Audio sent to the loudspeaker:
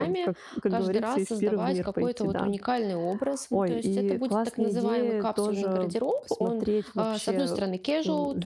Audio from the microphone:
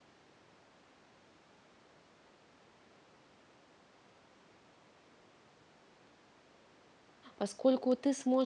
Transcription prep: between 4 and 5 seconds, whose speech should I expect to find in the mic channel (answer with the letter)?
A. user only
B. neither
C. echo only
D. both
B